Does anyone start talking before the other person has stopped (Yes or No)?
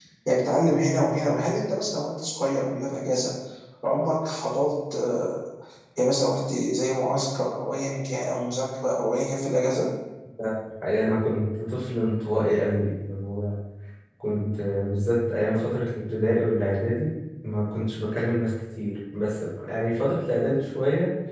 No